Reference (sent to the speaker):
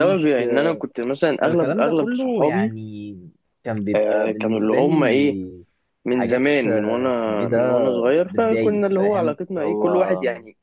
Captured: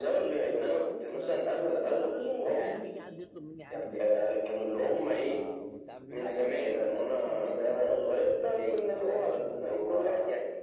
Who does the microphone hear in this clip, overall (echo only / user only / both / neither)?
both